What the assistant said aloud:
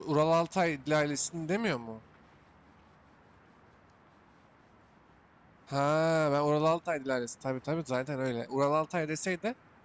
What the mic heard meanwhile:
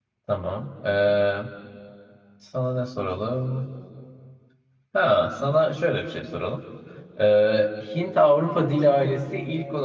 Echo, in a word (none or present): none